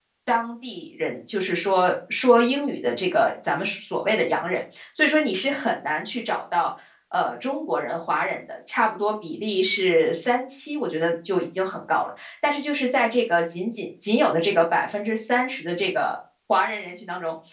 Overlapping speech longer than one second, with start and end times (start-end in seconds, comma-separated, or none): none